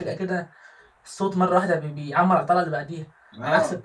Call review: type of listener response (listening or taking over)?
taking over